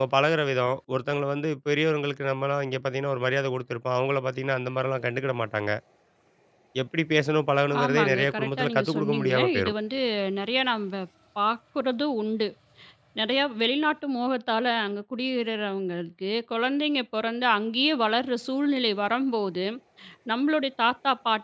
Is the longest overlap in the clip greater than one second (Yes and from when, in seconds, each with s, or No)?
Yes, from 7.7 s